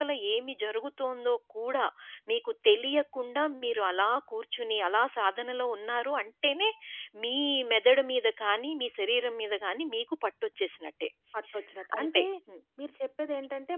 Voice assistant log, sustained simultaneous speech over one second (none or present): none